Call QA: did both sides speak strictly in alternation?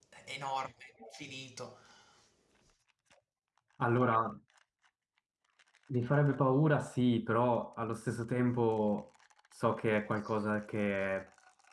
Yes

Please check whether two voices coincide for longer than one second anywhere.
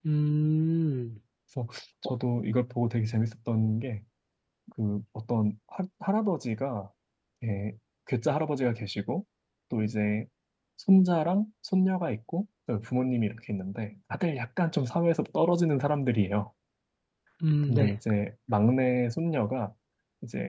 No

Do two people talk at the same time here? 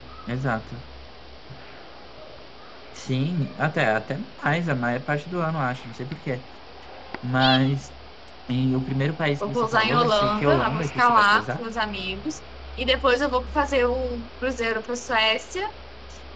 Yes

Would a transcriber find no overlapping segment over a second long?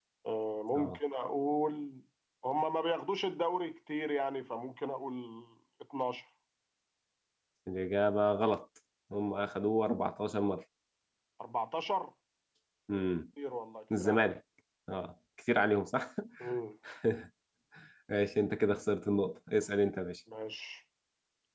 Yes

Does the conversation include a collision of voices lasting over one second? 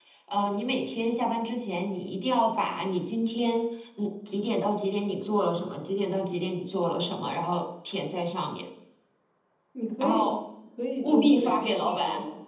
Yes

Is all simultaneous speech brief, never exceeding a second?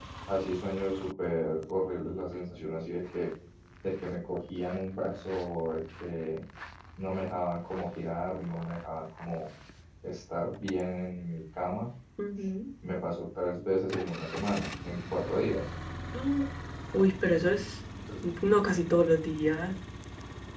Yes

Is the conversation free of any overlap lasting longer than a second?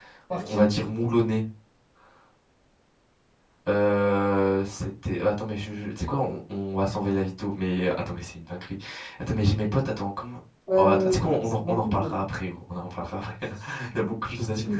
No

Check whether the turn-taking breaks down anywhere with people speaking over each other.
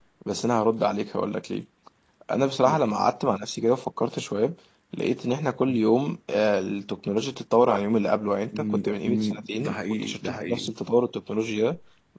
Yes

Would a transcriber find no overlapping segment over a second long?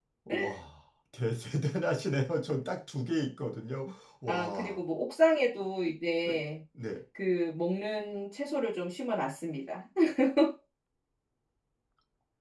Yes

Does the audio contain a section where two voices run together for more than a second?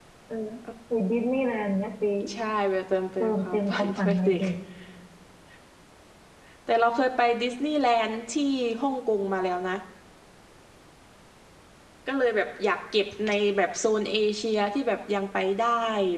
Yes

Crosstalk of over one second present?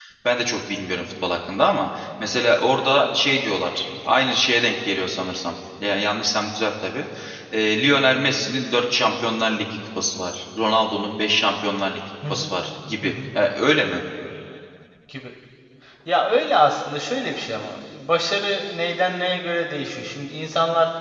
No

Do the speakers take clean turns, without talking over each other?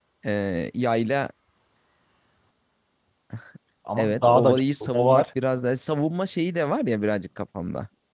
No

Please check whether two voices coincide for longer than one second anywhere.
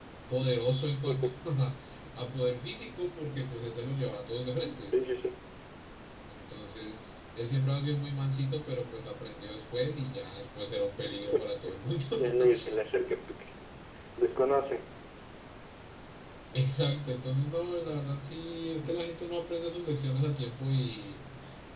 No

